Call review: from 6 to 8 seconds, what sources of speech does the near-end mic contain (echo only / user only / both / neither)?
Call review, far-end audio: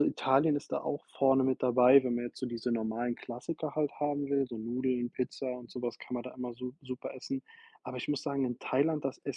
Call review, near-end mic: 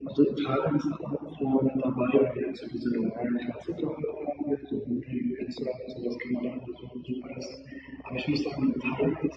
echo only